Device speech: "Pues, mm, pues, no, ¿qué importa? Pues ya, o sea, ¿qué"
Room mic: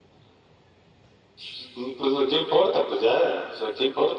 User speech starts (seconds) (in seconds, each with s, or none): none